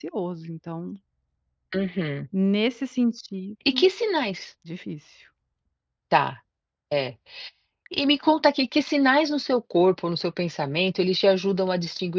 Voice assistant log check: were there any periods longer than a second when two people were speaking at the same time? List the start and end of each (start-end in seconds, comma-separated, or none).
none